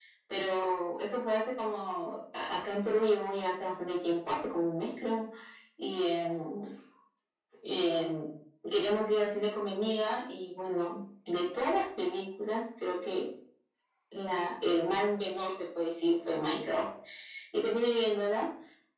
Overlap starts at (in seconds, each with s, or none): none